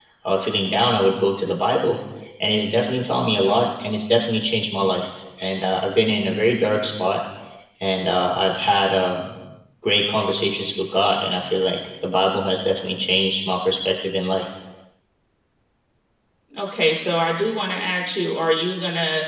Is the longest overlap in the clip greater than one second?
No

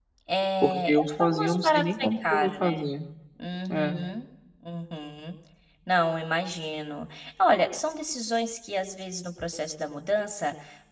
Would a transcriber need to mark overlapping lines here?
Yes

